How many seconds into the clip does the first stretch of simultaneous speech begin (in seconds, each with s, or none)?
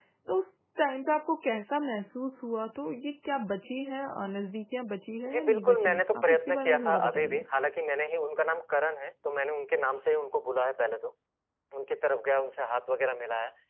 5.2 s